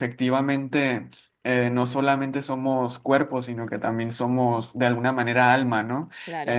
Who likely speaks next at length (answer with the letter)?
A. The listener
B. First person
A